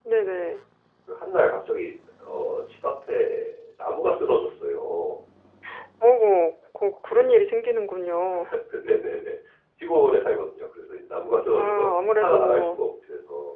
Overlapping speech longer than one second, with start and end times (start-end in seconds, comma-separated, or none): 11.5-12.8